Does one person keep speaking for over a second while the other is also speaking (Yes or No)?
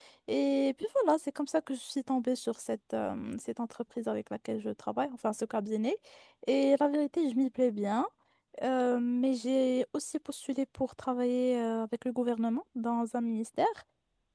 No